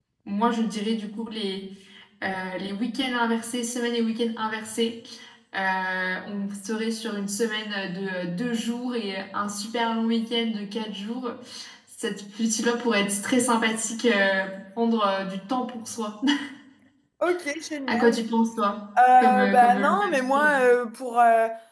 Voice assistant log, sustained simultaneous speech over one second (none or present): present